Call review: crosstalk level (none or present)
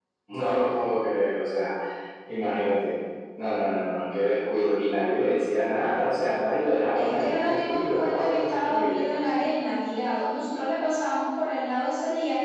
present